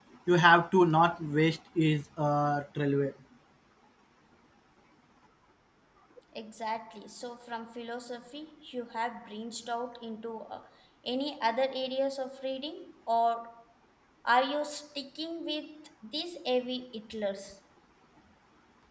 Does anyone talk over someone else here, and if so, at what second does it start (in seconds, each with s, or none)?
none